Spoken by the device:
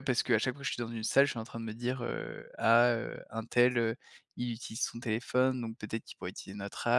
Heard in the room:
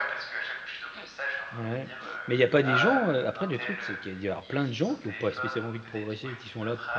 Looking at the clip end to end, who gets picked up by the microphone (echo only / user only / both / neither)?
both